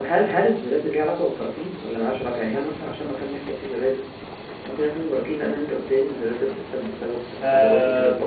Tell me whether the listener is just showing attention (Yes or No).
No